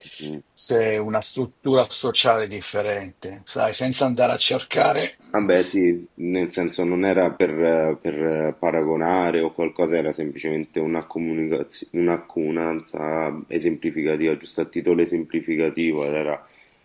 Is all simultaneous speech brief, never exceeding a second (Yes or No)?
Yes